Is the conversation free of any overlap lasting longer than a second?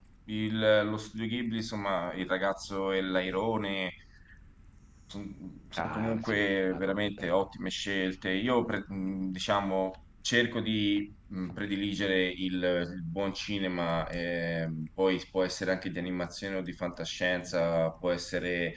No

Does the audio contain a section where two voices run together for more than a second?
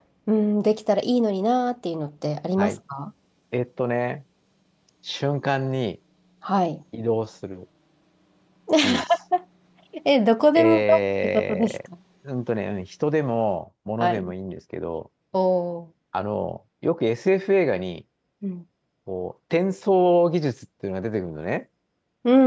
Yes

